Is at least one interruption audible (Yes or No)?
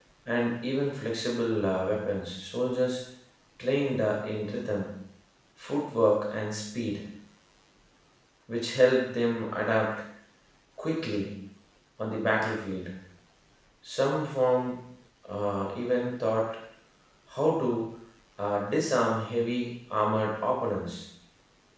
No